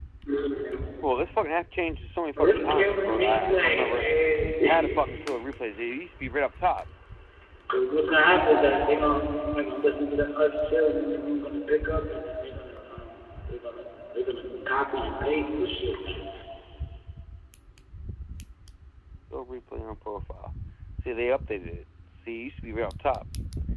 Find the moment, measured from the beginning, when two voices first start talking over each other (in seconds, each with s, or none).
2.4 s